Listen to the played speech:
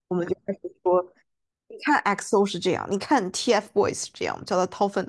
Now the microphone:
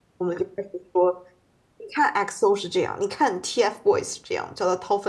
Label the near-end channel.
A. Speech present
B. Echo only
B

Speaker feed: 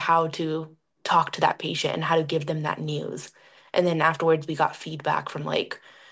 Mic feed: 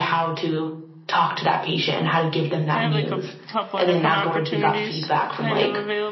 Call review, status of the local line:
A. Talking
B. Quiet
A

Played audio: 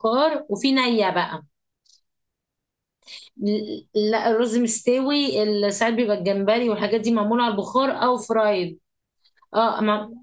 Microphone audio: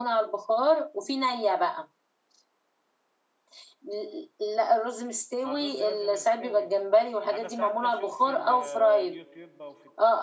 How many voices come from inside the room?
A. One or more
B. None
A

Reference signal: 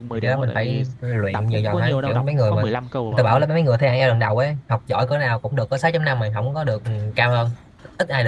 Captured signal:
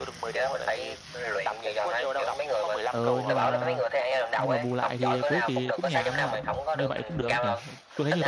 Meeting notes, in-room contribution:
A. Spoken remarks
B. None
A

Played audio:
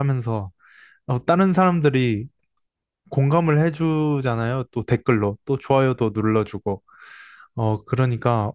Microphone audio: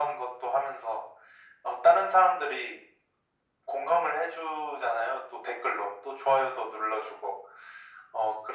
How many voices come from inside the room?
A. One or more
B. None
B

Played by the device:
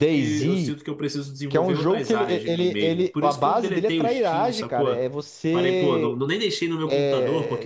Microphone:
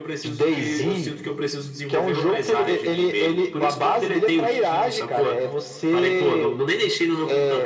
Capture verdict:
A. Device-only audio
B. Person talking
A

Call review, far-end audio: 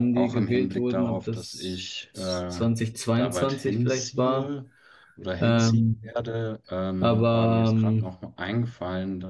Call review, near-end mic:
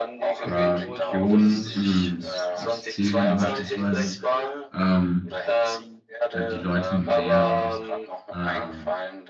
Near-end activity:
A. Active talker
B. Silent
A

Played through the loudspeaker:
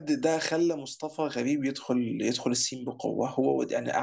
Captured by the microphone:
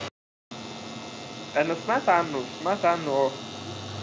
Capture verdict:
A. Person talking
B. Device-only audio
A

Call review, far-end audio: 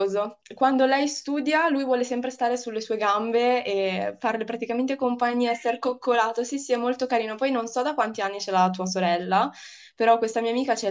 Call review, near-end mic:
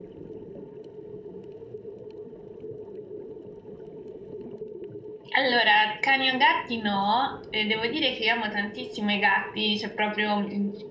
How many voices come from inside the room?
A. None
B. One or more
B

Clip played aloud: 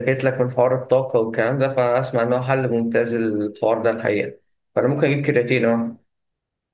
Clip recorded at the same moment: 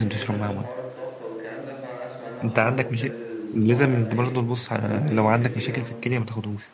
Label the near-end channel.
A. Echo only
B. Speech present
B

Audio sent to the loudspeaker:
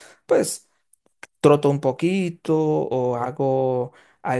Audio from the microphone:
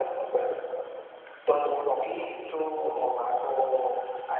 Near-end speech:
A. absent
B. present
A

